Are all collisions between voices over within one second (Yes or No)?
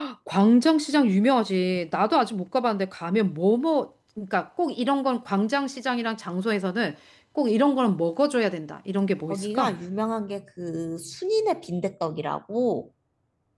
Yes